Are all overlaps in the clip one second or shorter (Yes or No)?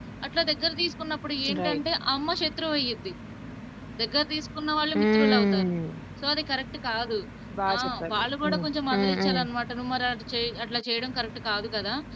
No